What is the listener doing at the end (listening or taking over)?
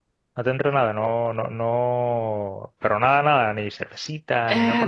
taking over